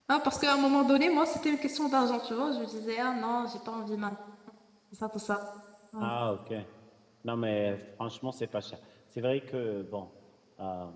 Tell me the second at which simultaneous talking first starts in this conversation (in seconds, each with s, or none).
none